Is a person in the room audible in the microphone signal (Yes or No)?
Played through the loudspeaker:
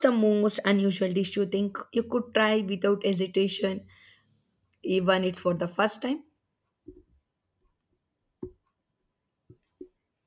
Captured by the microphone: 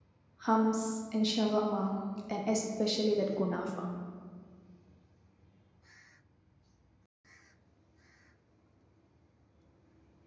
Yes